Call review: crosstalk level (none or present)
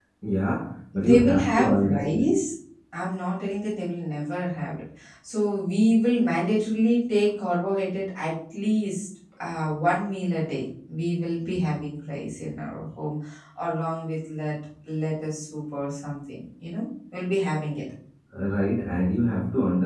present